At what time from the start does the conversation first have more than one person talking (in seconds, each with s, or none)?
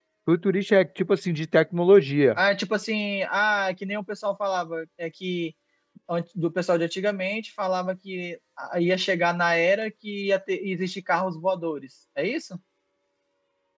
none